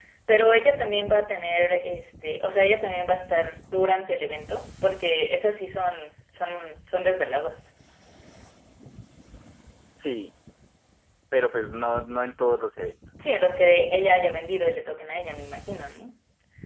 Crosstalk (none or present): none